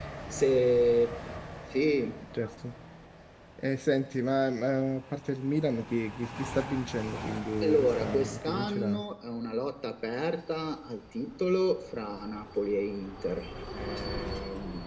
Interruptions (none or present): present